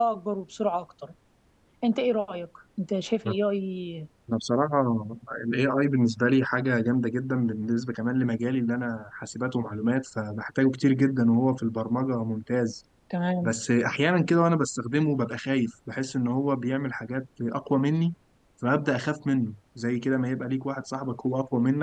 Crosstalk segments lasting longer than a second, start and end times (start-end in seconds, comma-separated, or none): none